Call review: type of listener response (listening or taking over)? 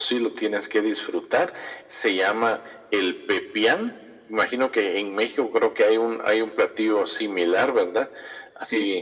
listening